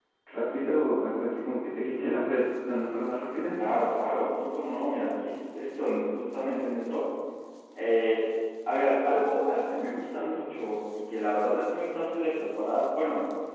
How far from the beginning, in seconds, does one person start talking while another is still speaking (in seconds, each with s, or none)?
none